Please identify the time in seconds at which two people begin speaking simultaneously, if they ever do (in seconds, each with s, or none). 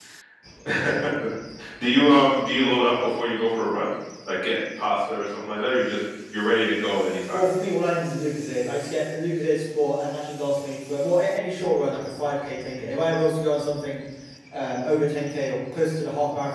none